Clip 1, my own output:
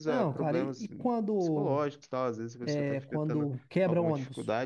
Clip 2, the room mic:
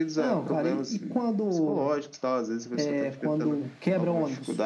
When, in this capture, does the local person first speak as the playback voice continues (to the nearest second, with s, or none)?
none